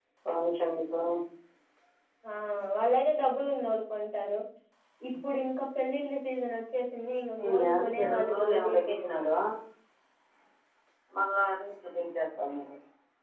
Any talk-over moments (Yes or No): Yes